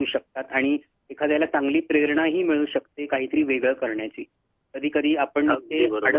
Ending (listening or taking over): listening